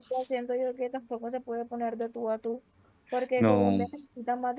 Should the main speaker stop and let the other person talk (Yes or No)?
No